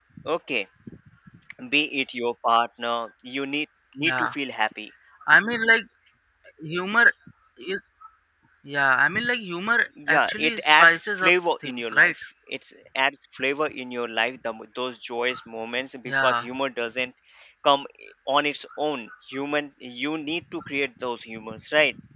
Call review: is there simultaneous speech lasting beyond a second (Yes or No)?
Yes